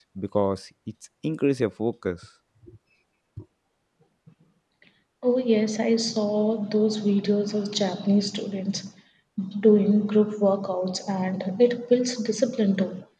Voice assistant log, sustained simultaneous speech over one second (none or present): none